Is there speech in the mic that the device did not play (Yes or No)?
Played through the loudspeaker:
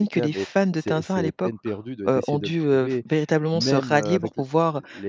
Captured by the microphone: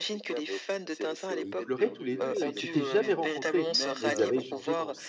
Yes